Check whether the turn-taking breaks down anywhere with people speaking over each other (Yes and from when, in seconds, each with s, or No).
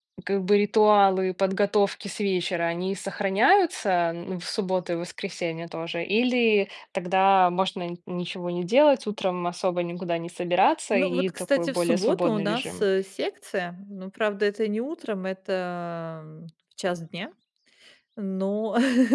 Yes, from 10.9 s